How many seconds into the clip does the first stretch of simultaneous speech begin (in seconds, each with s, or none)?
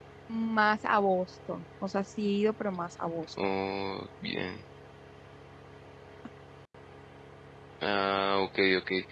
none